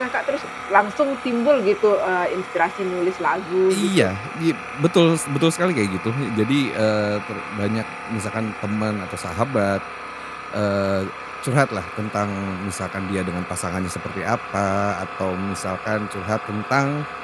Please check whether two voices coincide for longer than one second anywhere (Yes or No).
No